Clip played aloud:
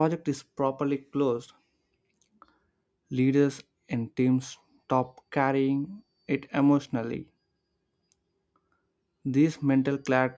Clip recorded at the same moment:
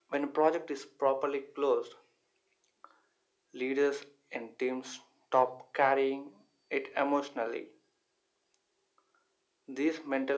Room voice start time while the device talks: none

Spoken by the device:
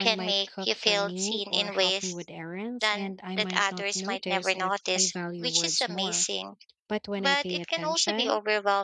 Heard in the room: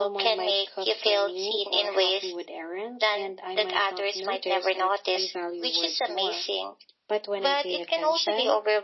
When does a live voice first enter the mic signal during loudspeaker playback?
none

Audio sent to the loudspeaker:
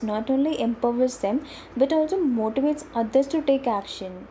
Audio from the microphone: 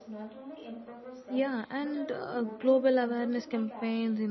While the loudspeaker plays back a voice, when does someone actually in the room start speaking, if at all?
1 s

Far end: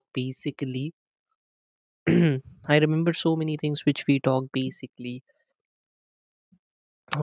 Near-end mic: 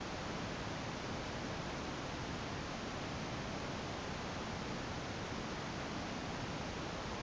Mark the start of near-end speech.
none

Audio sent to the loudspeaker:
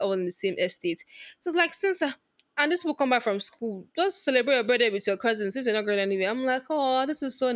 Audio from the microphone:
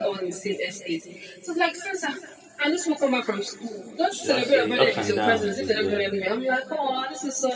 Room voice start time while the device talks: 4 s

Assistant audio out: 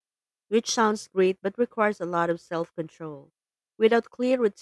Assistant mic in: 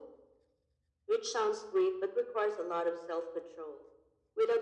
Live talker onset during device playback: none

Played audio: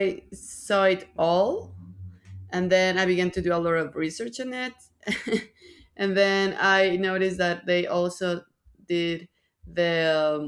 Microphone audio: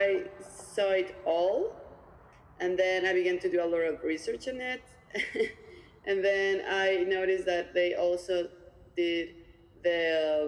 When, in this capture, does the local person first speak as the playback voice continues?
none

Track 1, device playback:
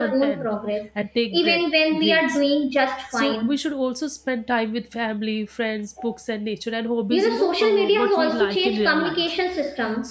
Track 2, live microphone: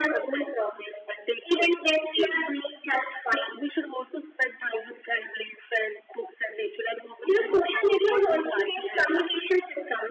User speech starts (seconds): none

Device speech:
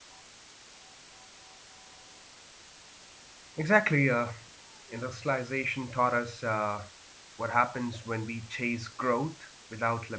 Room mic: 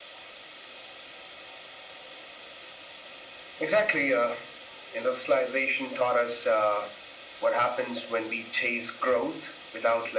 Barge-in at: none

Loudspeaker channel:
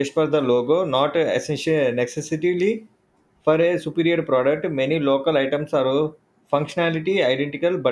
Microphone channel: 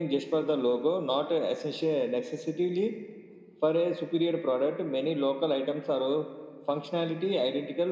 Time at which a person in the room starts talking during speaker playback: none

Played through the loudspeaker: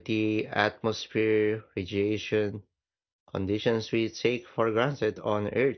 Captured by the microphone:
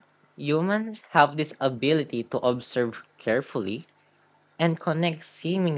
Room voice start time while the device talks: 0 s

